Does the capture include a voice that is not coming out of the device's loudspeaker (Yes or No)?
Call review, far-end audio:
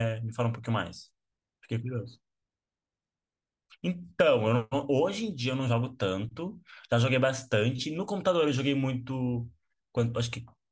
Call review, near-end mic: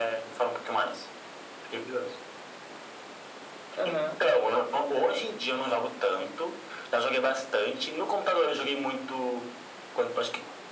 Yes